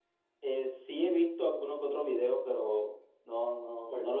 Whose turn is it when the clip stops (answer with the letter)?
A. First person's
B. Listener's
B